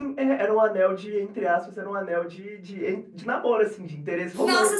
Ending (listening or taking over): taking over